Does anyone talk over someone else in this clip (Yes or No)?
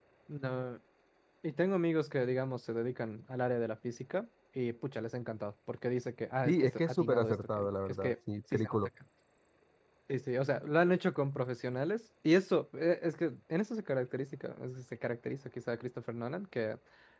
Yes